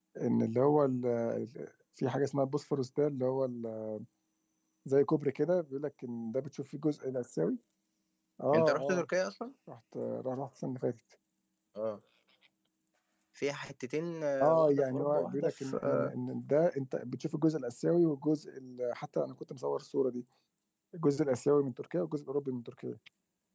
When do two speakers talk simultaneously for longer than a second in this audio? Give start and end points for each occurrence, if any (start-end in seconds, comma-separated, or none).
14.4-16.1